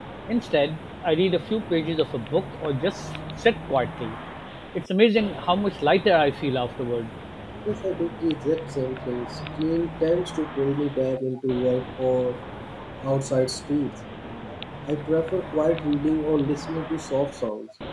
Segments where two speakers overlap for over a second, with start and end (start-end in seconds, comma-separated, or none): none